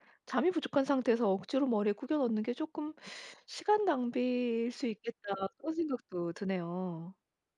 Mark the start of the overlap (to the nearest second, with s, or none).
none